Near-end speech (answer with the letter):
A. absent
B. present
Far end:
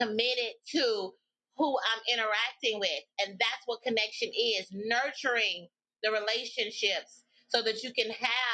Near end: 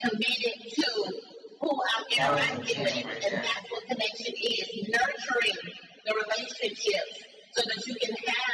B